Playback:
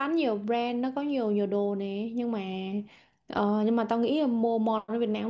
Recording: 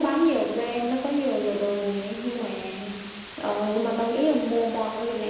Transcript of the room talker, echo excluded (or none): none